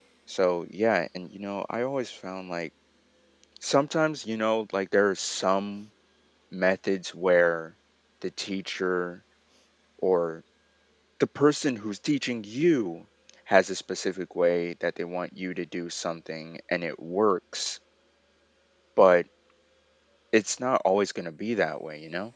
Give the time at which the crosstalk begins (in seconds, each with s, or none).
none